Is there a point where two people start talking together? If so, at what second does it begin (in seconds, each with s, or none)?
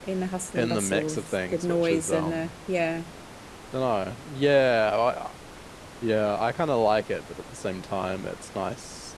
0.6 s